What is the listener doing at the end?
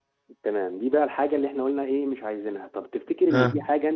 listening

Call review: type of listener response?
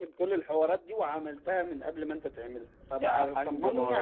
taking over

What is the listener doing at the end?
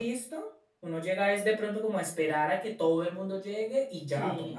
taking over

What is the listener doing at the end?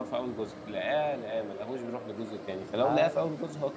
listening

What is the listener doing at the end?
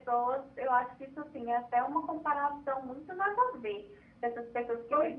listening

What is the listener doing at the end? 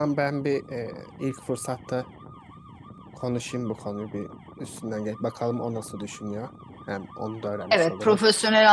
taking over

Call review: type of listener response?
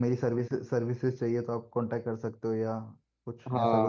taking over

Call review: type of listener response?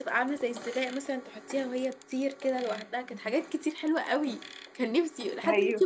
listening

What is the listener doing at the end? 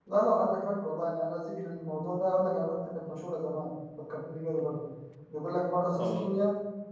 listening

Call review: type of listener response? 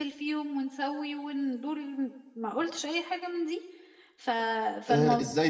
taking over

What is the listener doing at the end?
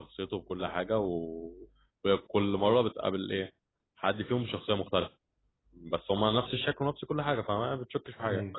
taking over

